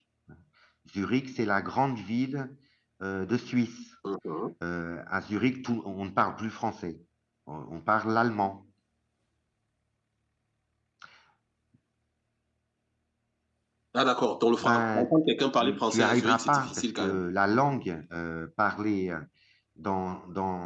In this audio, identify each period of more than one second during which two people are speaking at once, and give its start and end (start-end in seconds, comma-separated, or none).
15.6-17.2